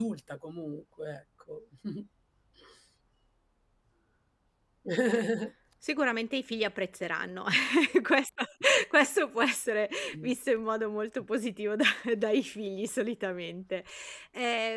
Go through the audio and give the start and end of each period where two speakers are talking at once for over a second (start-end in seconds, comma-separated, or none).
none